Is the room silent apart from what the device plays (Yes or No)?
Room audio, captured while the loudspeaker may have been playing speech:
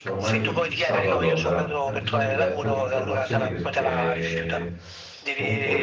No